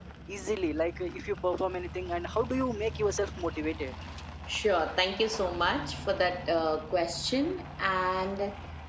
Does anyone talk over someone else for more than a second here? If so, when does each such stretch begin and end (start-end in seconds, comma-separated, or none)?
none